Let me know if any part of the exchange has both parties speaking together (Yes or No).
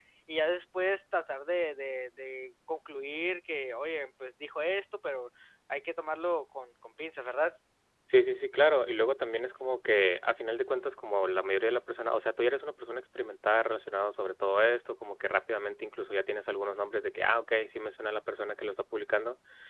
No